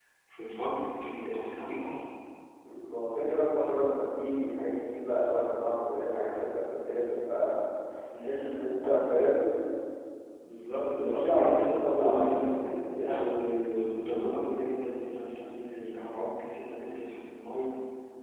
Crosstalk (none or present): present